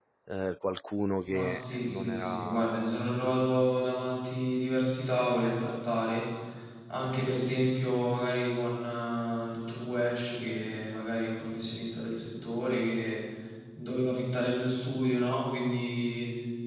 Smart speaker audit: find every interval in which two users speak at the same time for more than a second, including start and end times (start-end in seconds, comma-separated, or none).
1.3-2.9